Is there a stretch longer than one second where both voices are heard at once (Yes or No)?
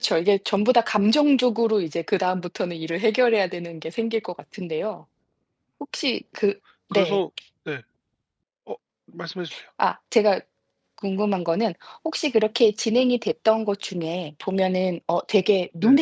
No